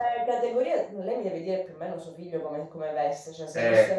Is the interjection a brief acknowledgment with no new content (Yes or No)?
Yes